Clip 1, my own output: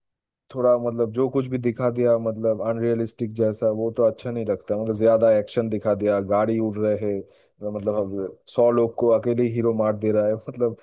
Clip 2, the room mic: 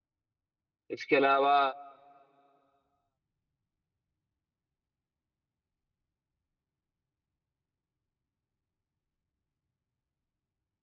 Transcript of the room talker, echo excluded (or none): इसके अलावा